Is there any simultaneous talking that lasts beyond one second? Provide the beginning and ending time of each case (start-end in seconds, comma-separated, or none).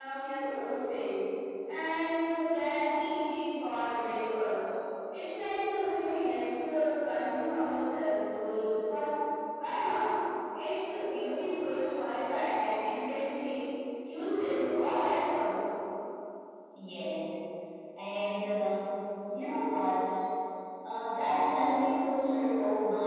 none